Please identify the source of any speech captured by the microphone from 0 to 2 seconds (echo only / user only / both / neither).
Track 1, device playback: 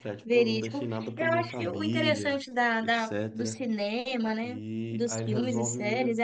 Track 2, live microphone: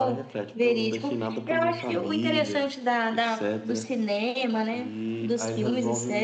echo only